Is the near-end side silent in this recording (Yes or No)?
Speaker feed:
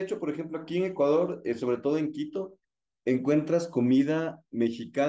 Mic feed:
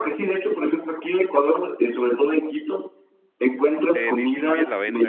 No